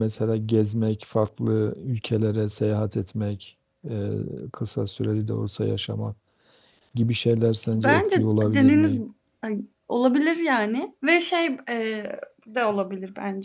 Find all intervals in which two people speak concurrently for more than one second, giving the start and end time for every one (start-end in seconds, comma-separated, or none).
7.7-9.0